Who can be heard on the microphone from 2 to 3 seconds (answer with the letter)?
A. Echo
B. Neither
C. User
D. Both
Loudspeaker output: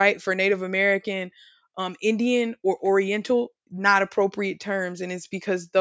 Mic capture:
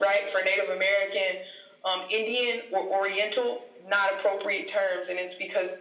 A